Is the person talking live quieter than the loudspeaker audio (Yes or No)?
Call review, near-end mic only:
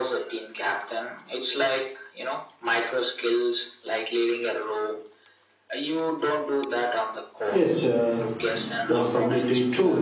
No